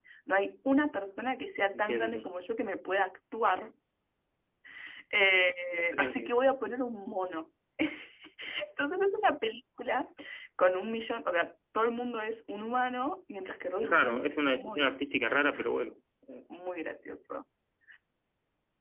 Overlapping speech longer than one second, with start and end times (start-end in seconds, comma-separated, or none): 13.8-15.0